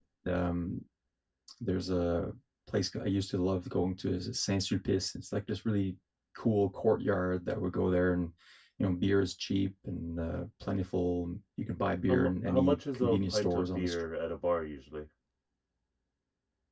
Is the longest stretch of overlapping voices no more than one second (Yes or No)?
No